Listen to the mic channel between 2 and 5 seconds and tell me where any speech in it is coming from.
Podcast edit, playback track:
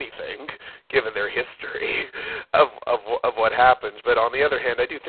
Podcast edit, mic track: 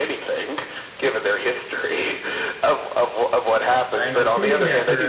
both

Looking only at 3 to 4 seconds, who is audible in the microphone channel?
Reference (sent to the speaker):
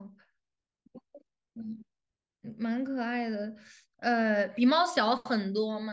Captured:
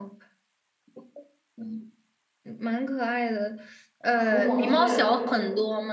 echo only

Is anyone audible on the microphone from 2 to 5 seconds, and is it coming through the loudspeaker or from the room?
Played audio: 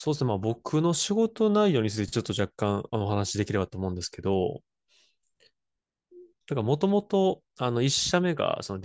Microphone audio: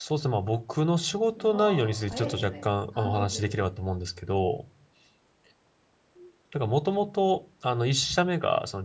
both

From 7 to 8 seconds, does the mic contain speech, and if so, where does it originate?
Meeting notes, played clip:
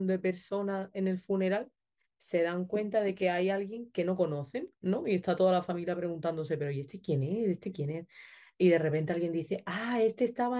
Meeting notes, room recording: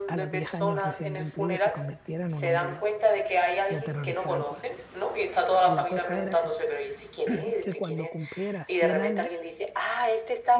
both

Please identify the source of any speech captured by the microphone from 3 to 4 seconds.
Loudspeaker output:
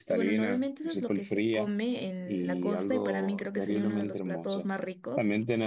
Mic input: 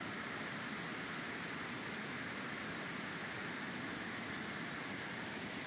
neither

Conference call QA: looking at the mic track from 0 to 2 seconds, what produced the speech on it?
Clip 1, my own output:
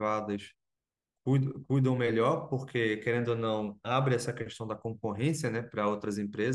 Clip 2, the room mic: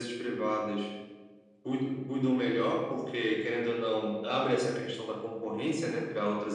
echo only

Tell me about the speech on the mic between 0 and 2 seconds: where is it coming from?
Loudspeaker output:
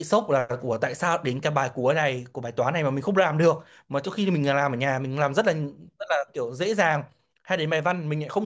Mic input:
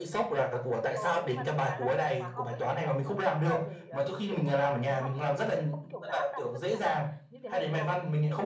both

